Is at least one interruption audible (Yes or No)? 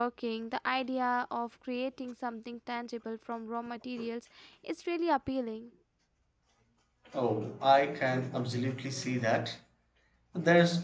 No